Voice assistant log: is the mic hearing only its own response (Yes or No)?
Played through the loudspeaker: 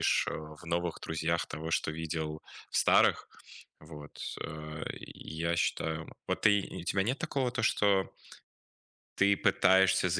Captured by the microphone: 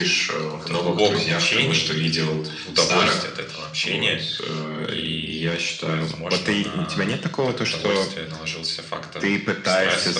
No